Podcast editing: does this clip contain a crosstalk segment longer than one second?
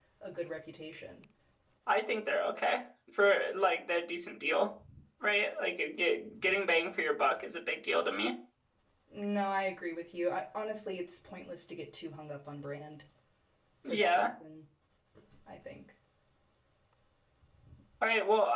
No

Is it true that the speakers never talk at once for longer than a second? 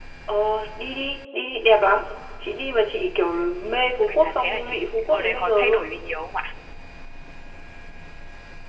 No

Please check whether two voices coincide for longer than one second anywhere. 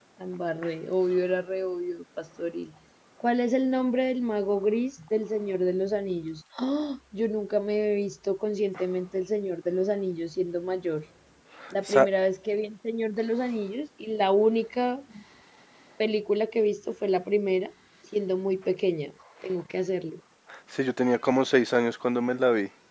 No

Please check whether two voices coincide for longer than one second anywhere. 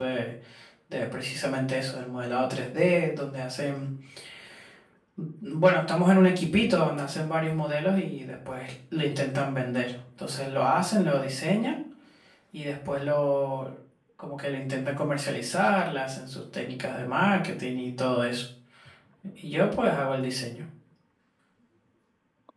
No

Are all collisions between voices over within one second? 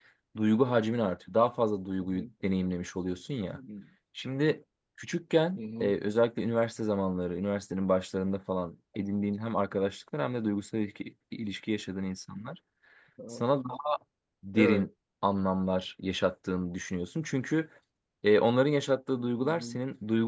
Yes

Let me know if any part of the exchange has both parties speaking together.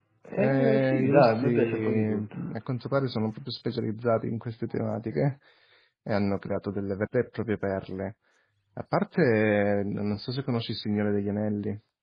Yes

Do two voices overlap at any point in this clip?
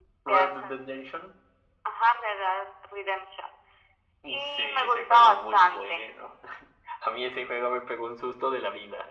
Yes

